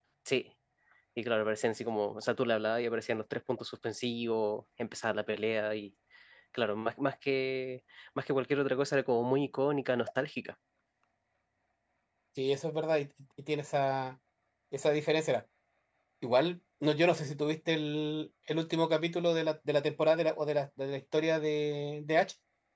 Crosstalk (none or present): none